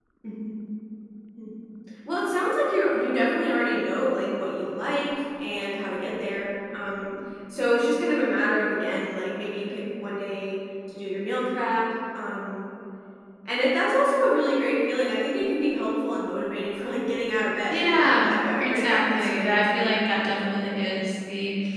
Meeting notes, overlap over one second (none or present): present